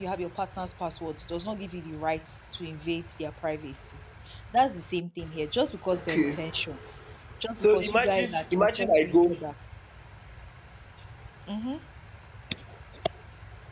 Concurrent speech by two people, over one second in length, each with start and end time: 7.6-9.1

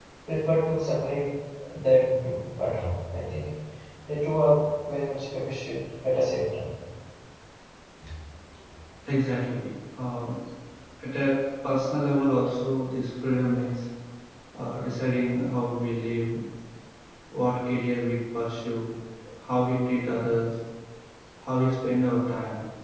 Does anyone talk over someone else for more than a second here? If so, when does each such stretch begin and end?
none

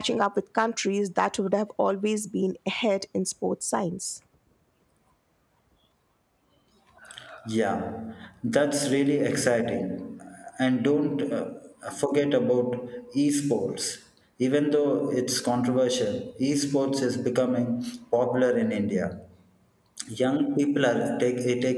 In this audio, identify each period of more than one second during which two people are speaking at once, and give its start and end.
none

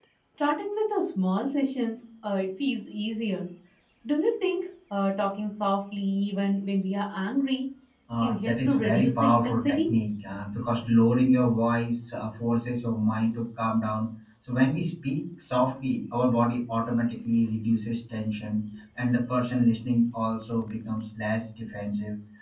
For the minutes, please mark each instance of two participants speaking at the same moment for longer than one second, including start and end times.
8.2-9.9

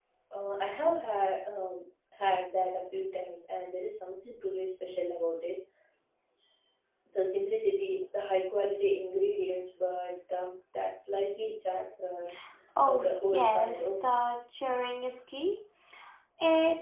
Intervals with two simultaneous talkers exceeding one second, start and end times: 12.9-14.3

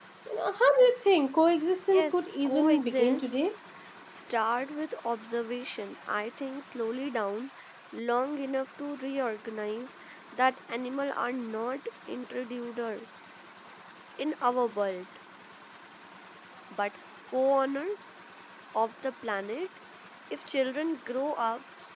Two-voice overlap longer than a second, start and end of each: 1.9-3.5

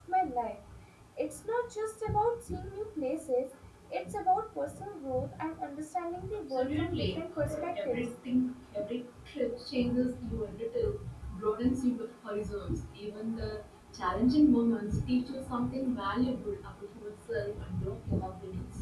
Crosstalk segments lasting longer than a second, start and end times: 6.3-8.1

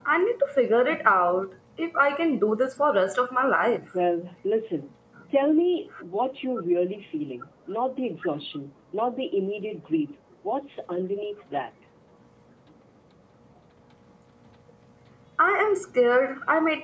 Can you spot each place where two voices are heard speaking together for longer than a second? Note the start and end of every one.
none

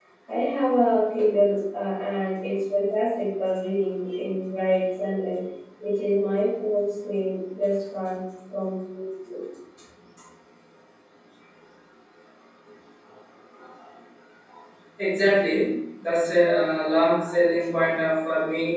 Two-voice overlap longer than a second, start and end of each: none

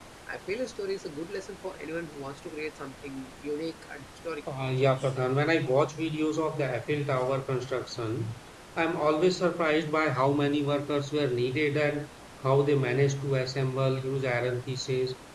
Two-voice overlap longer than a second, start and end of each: none

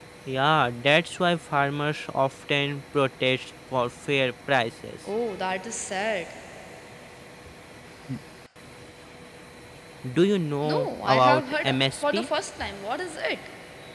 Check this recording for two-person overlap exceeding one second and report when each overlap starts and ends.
10.6-12.3

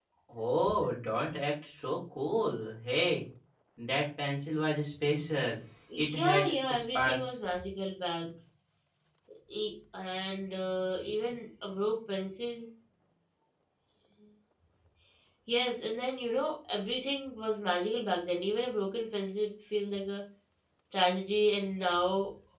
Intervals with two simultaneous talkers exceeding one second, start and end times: 6.0-7.2

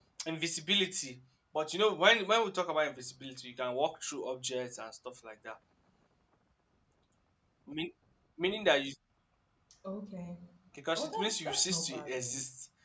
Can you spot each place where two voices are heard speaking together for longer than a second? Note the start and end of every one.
11.0-12.3

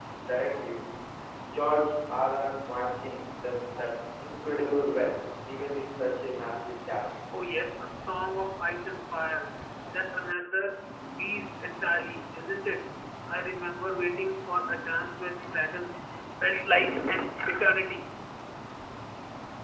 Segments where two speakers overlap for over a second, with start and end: none

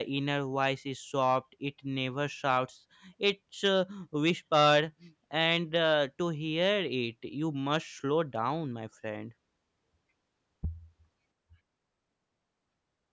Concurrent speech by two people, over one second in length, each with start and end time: none

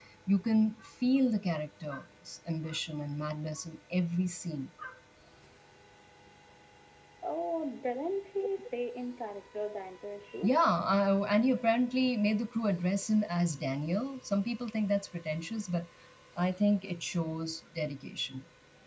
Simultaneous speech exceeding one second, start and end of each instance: none

